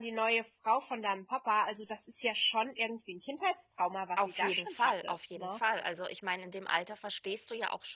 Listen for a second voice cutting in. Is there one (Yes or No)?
Yes